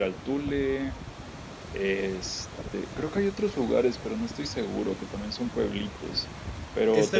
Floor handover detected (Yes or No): Yes